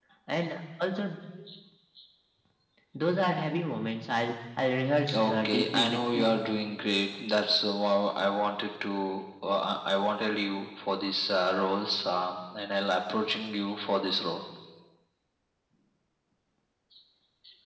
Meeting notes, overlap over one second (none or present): present